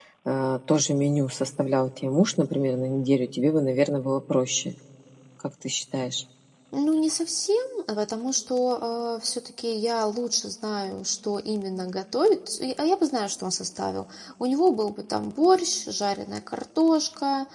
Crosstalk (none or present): none